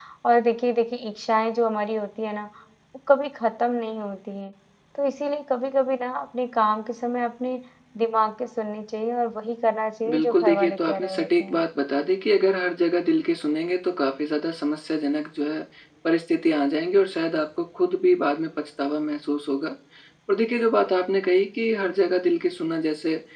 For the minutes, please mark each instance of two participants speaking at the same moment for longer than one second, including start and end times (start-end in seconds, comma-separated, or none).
10.1-11.6